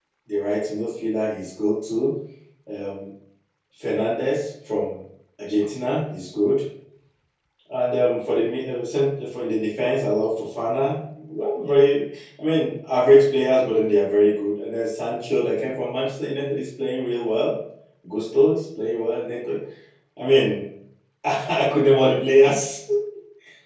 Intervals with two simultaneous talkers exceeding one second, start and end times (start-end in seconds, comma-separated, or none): none